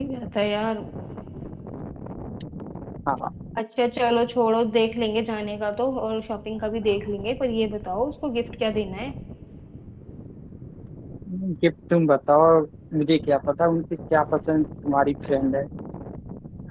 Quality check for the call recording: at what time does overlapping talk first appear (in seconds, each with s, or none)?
none